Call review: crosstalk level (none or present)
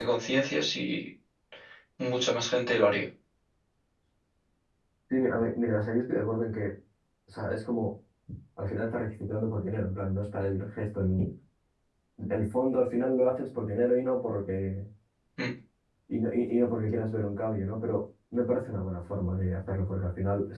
none